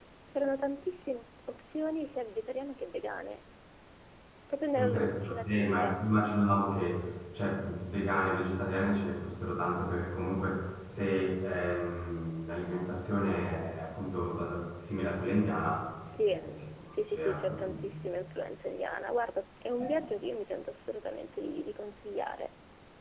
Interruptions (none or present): present